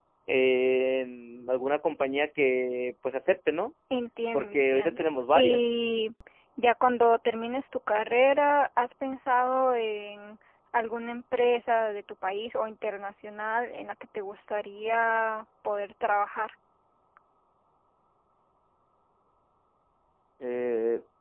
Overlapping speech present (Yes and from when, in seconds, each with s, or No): Yes, from 4.3 s